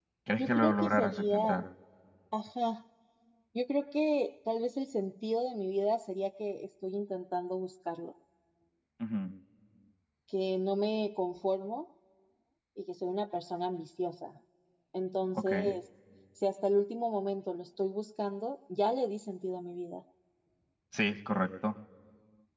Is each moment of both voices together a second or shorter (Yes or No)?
No